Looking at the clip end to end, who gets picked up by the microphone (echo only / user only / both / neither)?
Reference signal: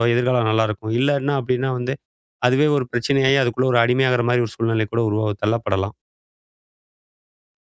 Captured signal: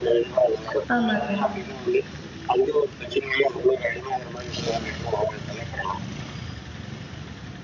both